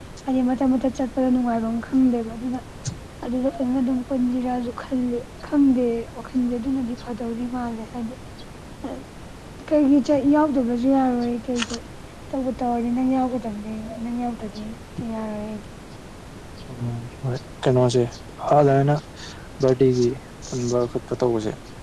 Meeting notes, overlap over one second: none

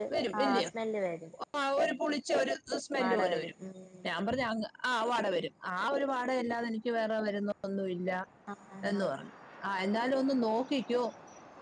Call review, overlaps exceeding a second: none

